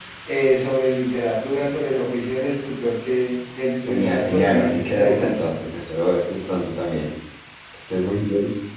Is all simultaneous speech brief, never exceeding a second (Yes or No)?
No